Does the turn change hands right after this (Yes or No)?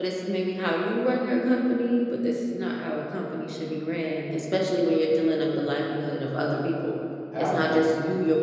No